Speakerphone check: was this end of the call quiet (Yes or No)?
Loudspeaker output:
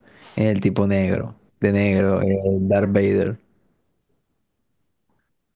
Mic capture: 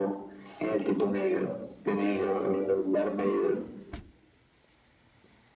Yes